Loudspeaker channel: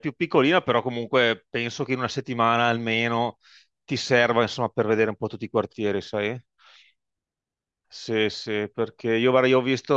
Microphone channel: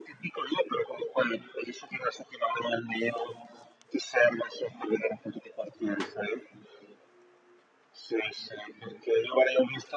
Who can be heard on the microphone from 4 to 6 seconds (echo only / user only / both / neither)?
echo only